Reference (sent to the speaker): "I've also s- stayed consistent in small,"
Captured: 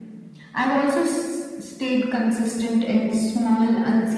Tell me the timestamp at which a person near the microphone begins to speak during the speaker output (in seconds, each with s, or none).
none